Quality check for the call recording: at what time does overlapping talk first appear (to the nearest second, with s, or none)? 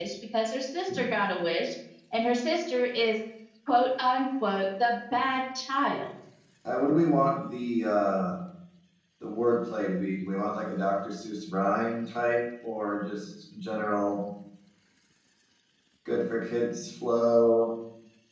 none